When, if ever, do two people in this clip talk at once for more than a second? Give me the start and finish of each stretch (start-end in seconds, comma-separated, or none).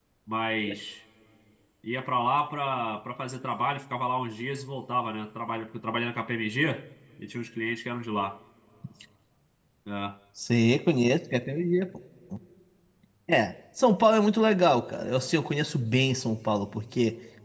none